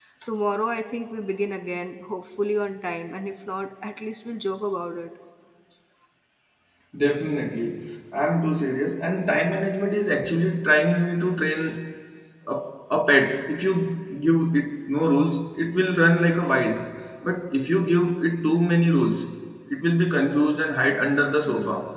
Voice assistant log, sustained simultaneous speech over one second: none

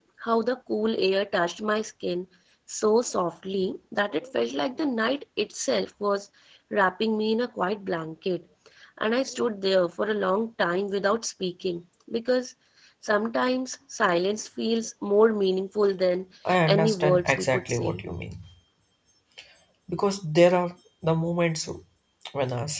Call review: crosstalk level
present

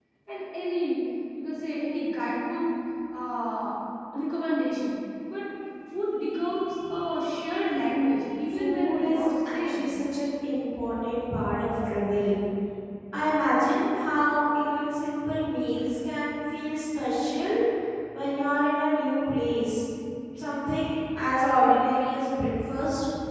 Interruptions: present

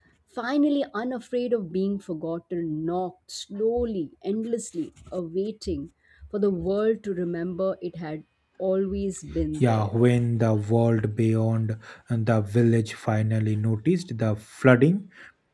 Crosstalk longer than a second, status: none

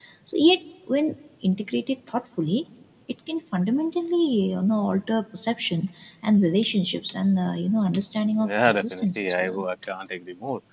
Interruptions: present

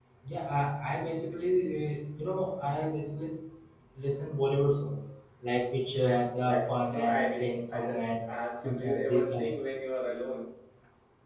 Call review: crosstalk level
present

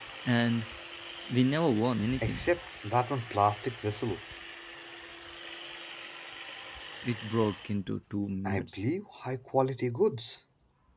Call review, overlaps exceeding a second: none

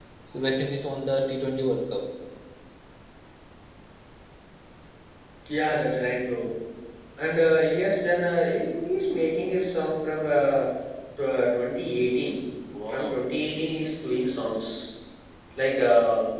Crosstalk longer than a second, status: none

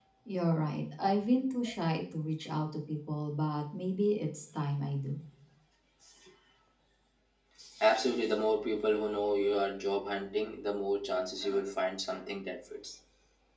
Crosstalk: none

